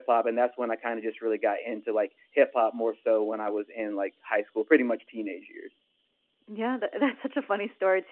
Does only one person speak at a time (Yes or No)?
Yes